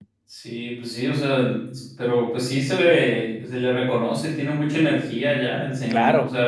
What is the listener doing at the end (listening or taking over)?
taking over